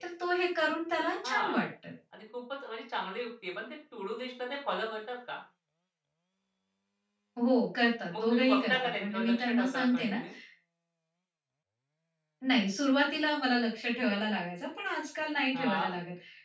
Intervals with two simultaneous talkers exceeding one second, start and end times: 8.1-10.2

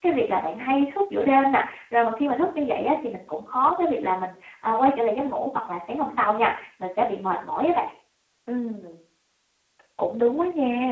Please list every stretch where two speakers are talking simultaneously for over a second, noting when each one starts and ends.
none

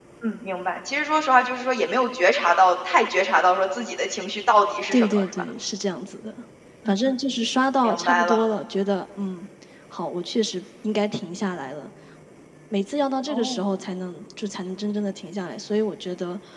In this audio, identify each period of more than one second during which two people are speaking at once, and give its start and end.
none

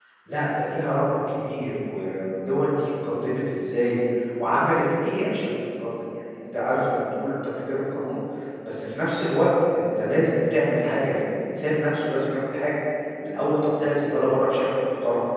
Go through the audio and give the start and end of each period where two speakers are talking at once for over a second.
none

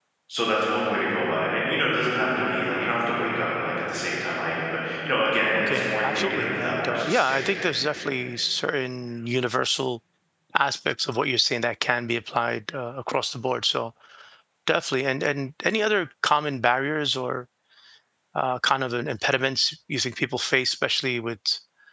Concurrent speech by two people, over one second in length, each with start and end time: 5.5-7.6

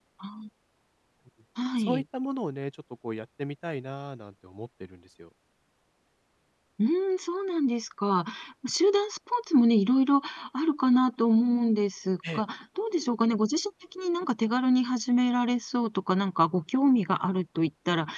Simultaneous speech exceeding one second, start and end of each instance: none

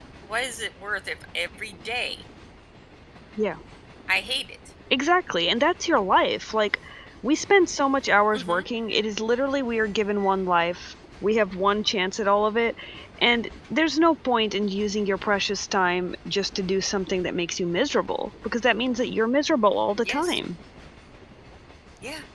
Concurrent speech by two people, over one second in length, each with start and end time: none

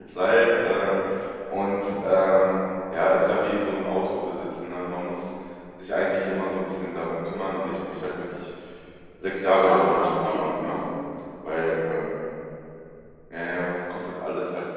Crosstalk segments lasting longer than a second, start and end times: 9.5-10.8

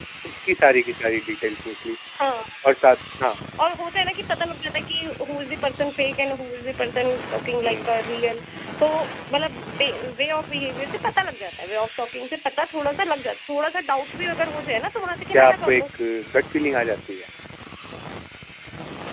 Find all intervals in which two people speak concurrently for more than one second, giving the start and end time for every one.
none

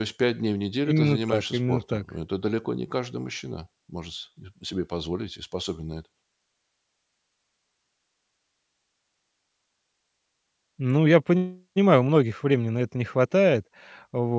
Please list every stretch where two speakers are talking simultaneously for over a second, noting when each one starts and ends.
0.9-2.1

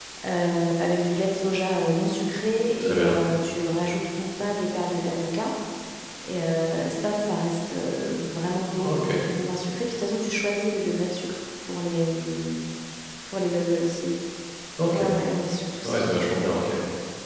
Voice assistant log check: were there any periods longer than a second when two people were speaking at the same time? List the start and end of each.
none

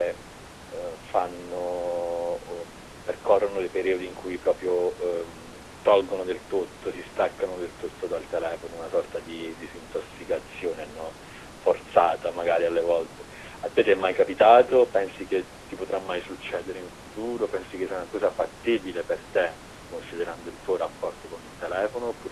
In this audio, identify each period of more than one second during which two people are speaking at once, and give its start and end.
none

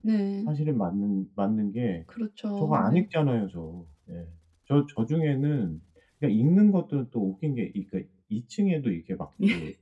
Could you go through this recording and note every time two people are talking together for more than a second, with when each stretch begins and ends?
none

